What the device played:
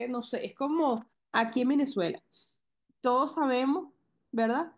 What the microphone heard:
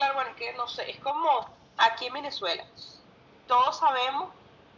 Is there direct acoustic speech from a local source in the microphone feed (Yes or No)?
No